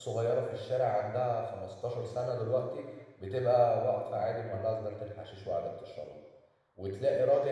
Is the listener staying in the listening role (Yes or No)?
Yes